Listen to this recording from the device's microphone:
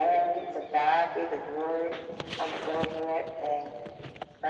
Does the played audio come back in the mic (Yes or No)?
Yes